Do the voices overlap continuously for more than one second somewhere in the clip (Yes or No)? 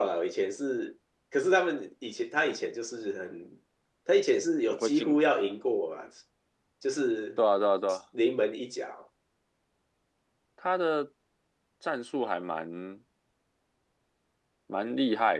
No